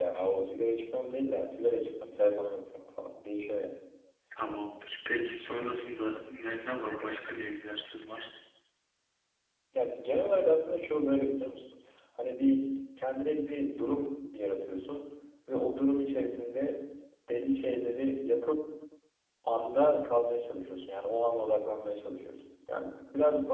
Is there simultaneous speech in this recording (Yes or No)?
No